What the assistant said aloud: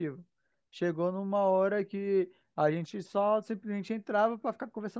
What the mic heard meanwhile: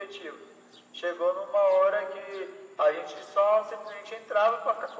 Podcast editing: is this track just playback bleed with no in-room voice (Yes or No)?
Yes